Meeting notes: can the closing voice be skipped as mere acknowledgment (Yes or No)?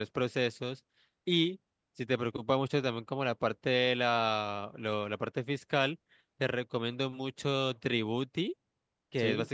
Yes